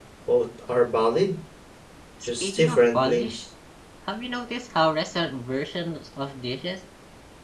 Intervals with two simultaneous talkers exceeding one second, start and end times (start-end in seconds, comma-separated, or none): 2.2-3.4